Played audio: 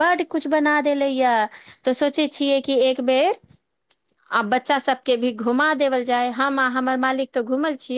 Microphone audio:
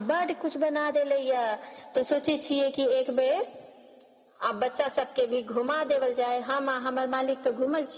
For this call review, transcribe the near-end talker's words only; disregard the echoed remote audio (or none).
none